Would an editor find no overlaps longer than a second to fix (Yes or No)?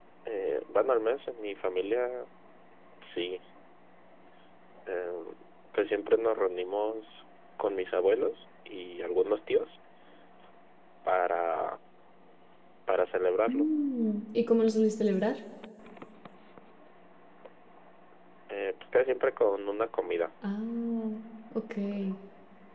Yes